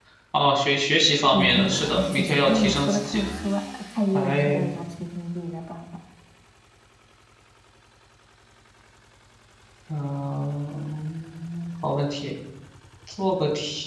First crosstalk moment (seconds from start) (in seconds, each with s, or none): 1.3 s